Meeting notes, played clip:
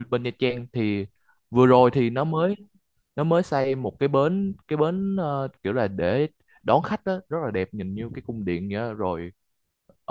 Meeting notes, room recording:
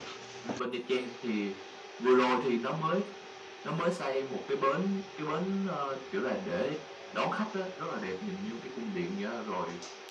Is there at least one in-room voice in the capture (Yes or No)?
No